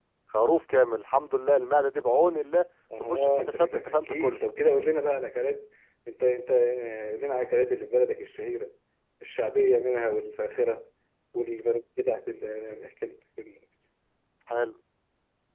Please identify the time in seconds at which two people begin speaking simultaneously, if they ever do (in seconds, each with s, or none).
2.9 s